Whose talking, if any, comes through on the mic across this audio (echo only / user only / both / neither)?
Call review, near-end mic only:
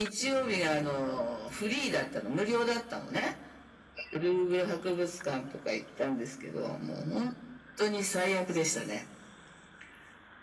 echo only